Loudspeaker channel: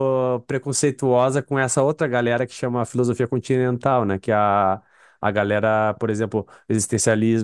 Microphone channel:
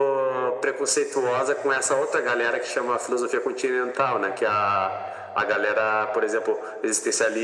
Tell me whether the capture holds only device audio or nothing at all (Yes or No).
Yes